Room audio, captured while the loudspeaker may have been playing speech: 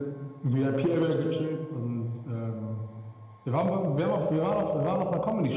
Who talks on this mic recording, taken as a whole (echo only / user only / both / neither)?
echo only